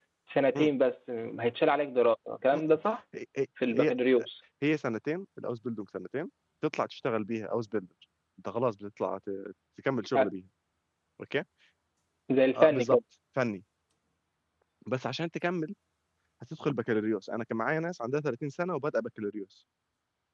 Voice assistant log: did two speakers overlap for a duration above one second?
No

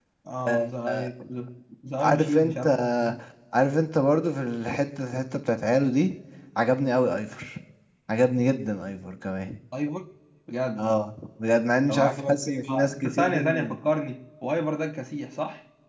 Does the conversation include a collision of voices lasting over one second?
Yes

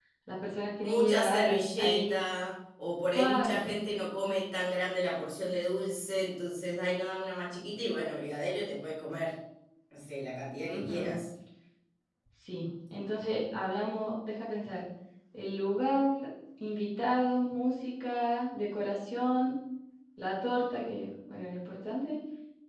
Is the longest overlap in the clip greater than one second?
Yes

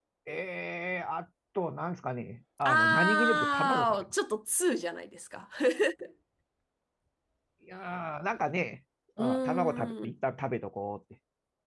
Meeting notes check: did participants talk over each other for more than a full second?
Yes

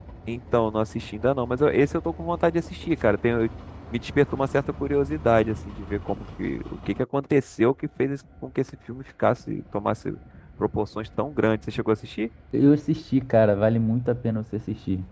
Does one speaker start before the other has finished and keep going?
No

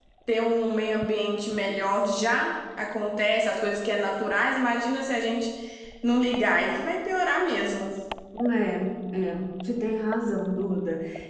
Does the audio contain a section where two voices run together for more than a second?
No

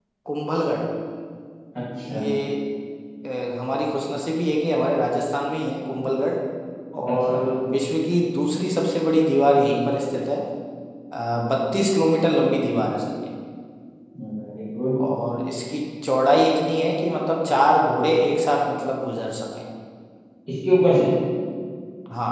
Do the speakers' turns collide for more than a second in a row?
No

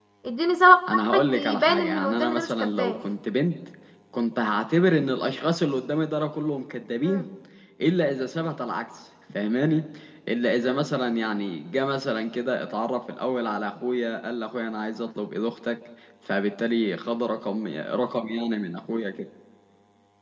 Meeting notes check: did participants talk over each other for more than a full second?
Yes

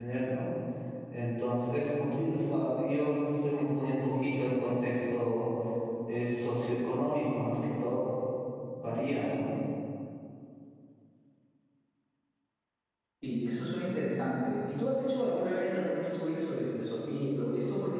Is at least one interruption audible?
No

